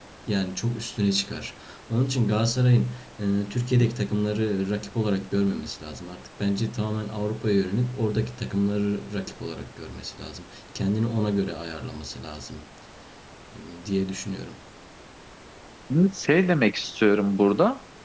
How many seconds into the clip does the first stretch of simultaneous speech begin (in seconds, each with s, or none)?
none